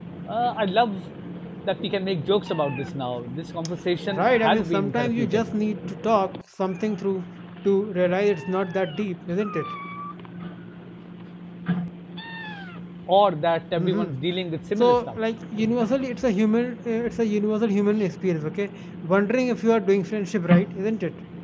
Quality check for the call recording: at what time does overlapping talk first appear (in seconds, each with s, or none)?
4.1 s